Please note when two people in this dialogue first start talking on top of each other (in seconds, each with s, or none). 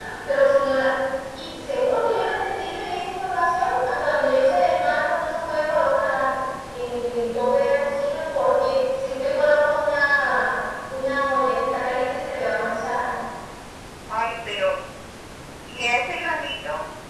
none